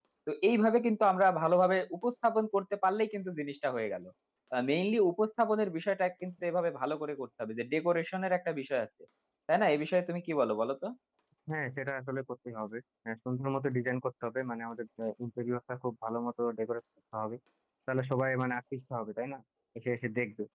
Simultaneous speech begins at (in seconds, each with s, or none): none